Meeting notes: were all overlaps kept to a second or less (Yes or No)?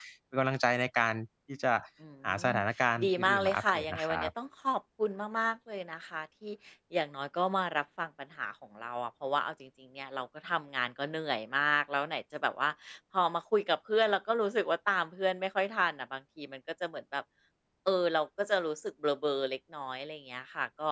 No